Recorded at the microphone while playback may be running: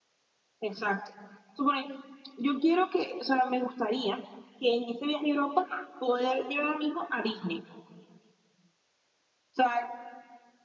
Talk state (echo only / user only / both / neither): echo only